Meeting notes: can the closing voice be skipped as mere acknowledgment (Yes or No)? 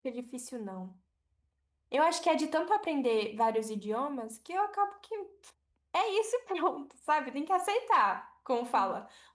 Yes